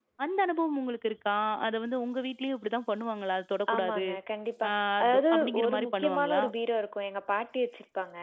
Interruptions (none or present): present